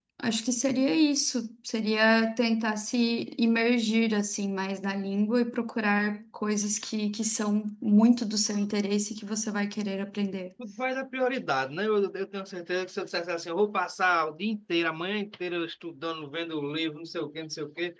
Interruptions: none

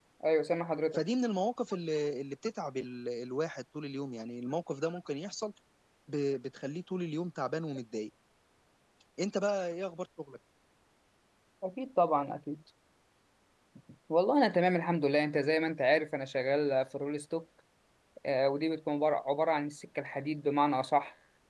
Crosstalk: none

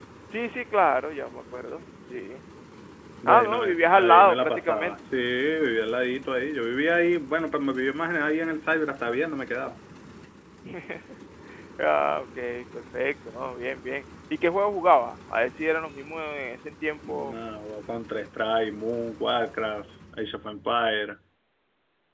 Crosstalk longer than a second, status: present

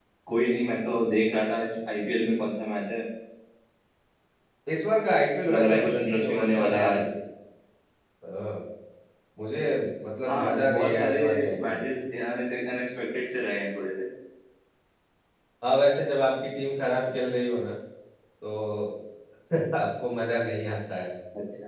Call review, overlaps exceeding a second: present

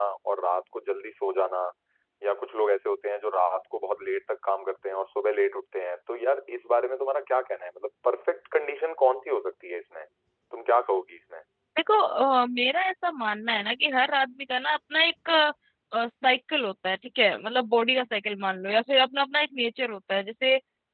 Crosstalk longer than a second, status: none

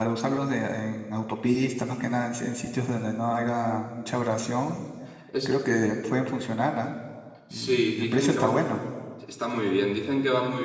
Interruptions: present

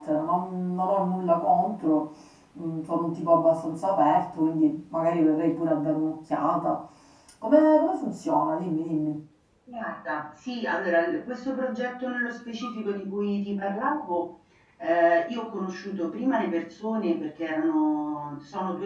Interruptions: none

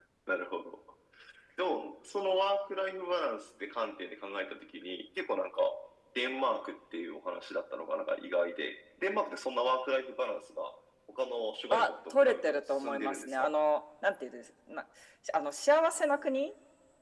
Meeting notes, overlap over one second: present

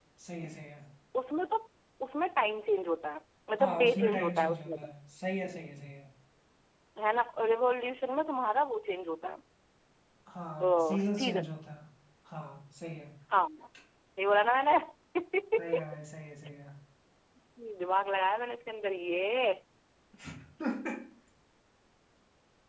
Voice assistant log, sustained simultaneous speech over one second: present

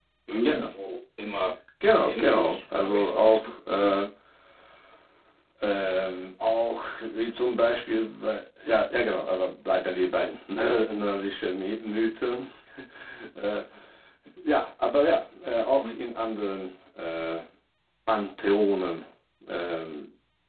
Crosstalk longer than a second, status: present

